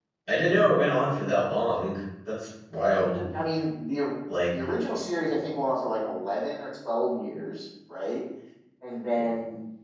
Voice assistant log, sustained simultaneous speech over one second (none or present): none